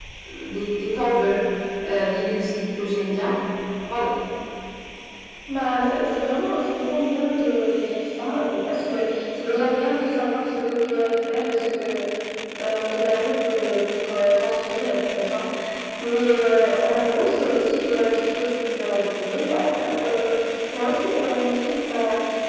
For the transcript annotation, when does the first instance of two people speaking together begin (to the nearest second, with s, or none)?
none